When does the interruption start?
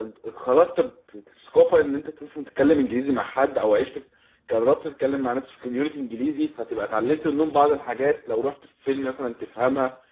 none

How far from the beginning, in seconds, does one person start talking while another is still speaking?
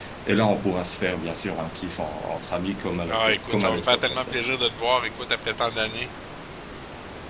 3.1 s

